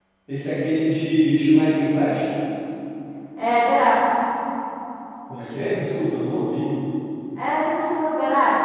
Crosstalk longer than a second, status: none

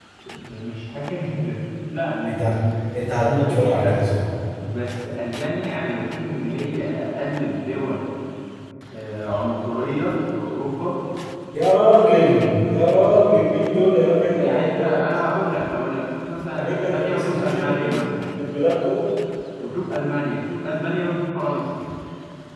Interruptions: present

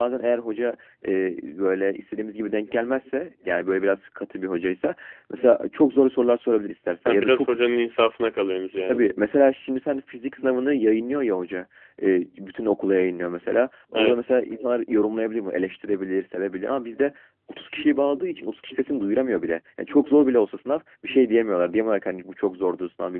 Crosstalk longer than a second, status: none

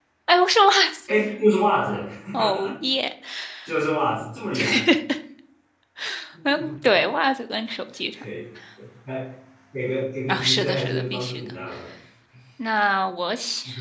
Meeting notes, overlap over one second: present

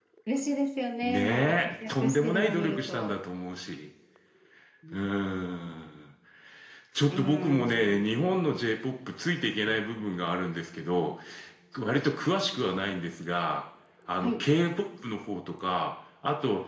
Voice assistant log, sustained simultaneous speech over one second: present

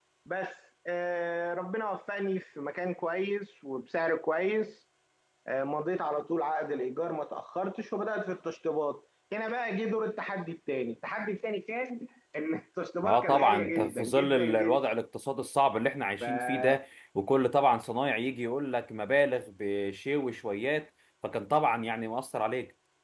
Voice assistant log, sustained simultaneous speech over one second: present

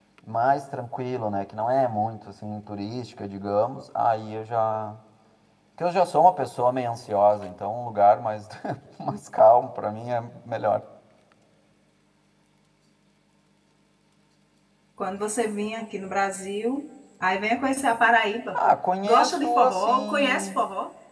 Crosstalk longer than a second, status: present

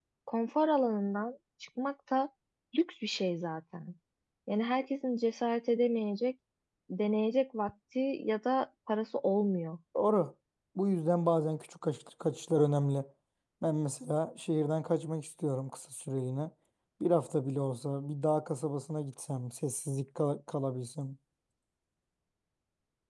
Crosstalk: none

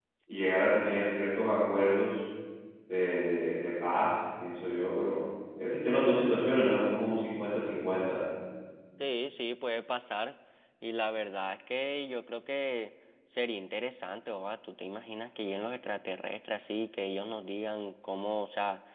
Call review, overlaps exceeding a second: none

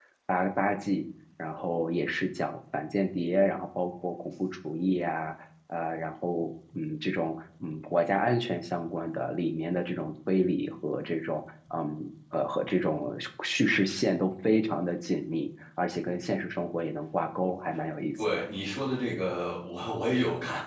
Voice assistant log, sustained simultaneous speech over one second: none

